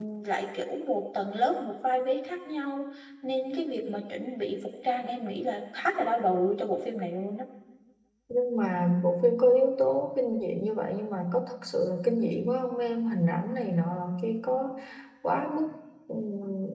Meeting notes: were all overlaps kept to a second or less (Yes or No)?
Yes